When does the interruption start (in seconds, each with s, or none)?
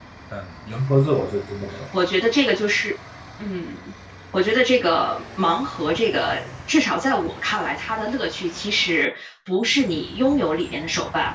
none